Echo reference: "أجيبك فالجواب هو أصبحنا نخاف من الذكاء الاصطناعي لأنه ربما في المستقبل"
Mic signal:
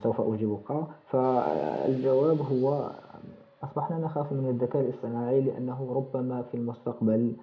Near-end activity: none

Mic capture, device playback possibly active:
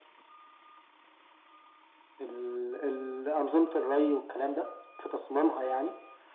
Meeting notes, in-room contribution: none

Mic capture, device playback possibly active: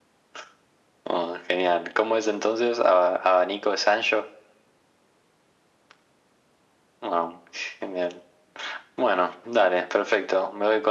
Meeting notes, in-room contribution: none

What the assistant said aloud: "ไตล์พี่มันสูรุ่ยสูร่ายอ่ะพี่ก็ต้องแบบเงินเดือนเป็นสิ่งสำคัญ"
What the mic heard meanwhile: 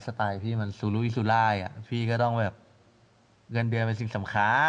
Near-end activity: none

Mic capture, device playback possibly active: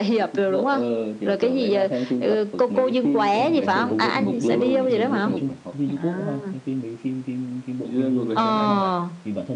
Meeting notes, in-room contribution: present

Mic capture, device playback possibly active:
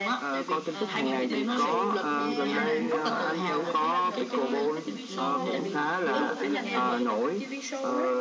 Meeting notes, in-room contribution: present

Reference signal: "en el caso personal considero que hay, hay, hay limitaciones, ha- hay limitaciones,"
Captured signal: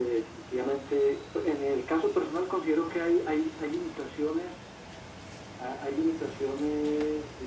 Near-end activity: none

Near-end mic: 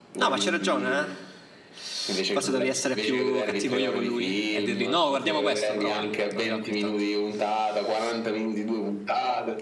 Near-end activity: present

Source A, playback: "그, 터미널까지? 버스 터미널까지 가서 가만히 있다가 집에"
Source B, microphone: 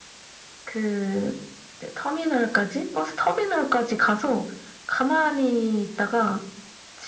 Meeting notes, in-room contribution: none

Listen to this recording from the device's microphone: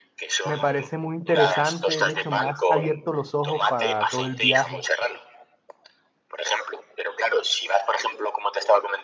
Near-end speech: present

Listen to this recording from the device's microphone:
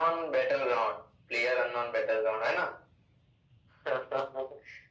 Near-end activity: none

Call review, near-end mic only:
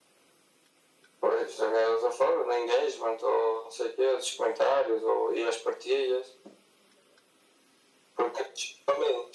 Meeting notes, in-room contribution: none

